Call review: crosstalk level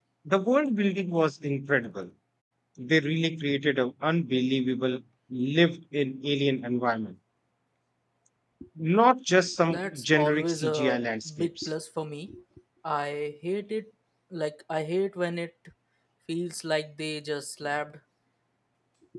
present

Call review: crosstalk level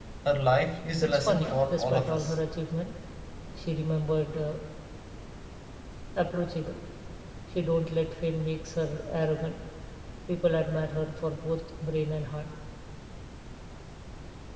present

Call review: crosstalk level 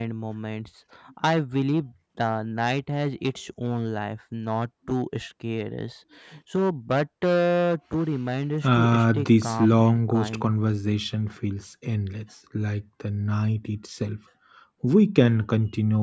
present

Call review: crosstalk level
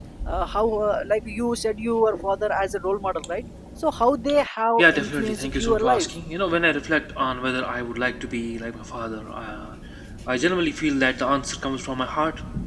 present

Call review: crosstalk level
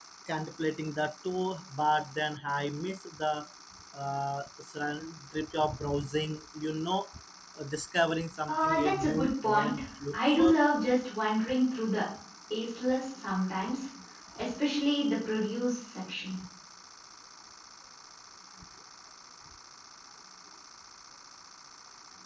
present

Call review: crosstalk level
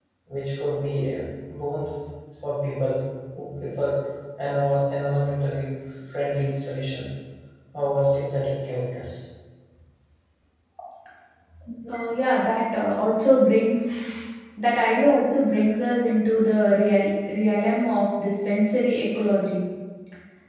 none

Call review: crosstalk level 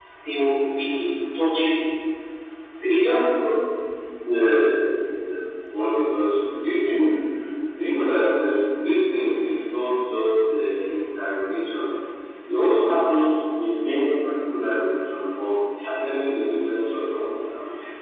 none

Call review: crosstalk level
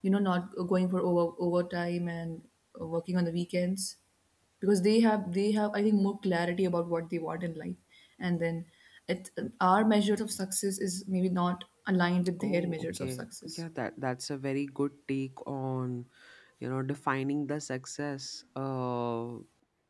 present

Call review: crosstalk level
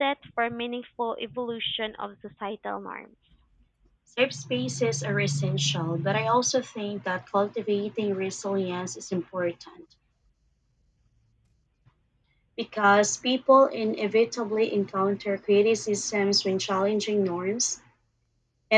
none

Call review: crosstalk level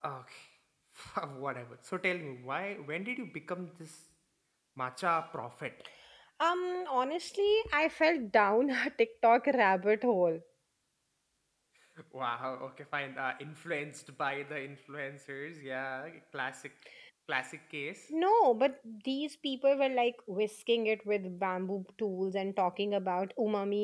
none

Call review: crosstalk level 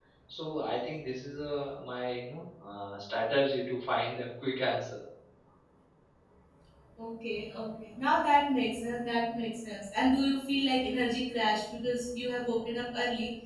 none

